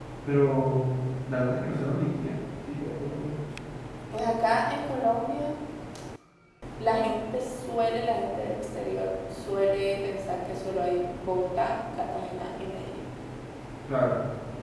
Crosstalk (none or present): none